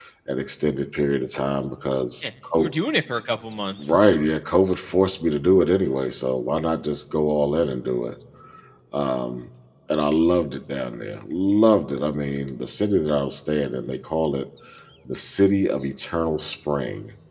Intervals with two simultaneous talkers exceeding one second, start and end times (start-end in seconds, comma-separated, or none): none